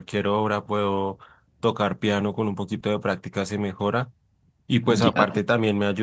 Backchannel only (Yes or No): Yes